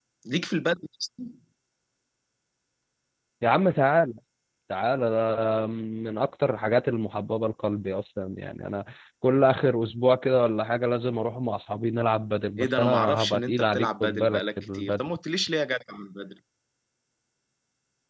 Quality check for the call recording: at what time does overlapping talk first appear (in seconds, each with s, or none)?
12.6 s